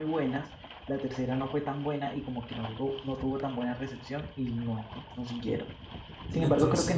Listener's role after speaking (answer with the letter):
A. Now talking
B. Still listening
B